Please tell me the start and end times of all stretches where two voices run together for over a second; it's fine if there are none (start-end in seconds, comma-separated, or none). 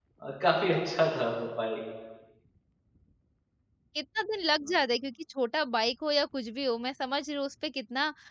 none